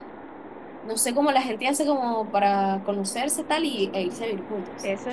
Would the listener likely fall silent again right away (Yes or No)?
No